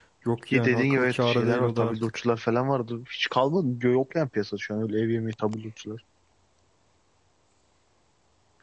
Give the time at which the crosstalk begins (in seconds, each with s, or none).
0.5 s